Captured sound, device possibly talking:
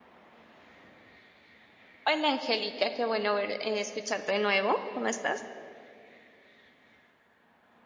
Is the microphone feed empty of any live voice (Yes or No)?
No